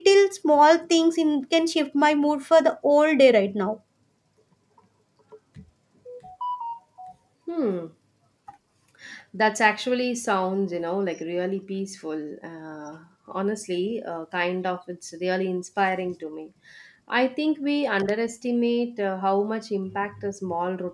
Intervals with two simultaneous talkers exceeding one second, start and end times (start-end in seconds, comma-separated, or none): none